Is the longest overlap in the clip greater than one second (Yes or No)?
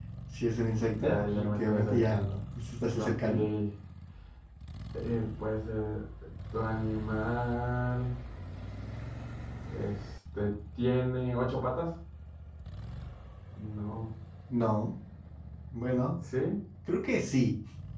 Yes